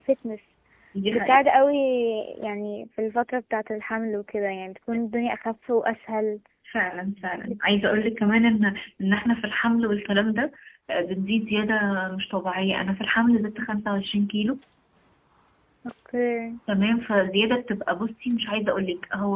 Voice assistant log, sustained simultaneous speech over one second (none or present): none